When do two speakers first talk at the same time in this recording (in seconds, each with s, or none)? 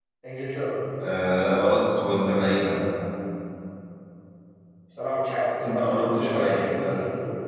5.6 s